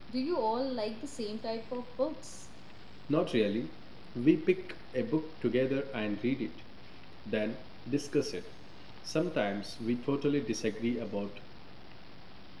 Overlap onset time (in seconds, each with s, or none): none